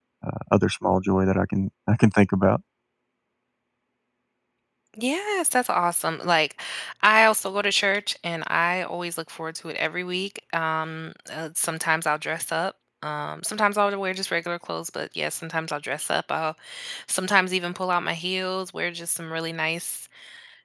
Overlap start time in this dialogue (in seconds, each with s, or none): none